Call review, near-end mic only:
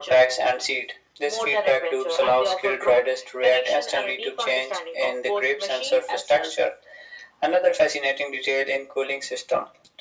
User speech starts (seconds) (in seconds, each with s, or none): none